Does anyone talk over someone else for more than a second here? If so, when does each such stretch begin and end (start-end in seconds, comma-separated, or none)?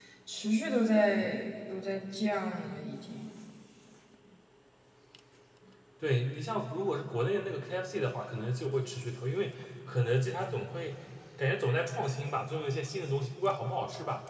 none